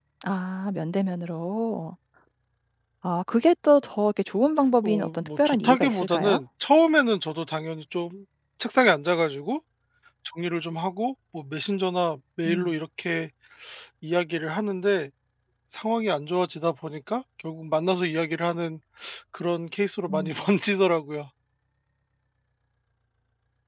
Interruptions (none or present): present